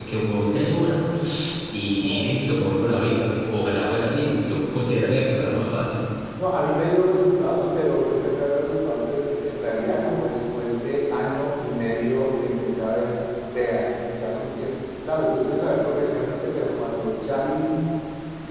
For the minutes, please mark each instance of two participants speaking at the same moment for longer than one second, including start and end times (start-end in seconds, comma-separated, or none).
none